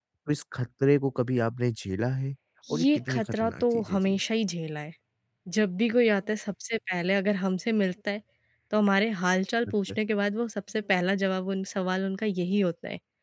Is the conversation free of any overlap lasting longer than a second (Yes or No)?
No